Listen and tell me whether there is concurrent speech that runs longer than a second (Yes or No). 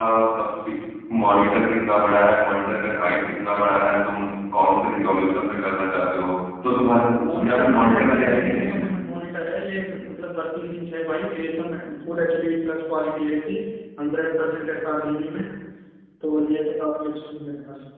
Yes